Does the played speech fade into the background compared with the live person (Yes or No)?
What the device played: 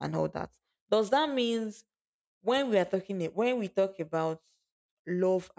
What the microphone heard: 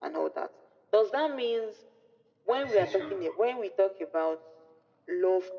No